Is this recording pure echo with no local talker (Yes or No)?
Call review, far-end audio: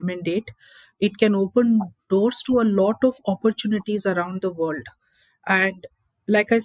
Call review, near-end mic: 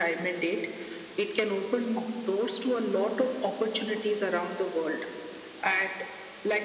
Yes